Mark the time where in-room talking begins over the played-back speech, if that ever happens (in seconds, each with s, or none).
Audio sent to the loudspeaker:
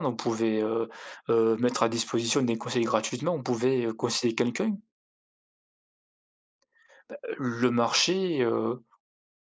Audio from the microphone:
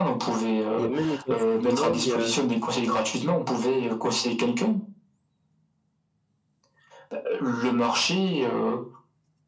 0.7 s